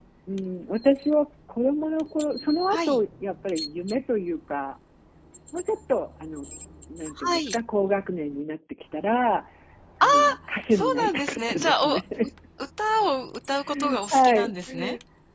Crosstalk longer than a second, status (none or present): present